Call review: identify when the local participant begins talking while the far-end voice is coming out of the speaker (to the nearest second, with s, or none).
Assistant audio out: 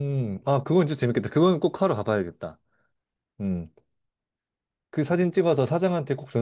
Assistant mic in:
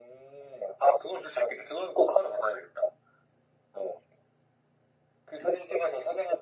none